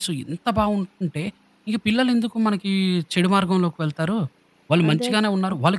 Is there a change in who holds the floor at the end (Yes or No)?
No